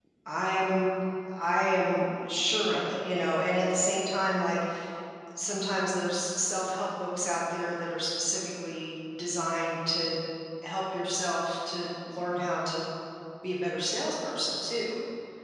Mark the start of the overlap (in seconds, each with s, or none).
none